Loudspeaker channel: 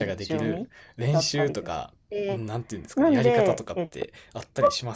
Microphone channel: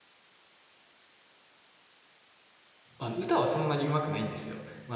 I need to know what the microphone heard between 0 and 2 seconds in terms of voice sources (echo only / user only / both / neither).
neither